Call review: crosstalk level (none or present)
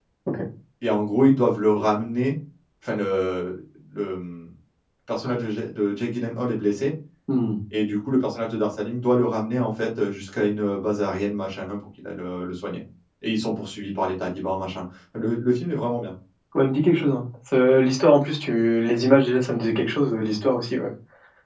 none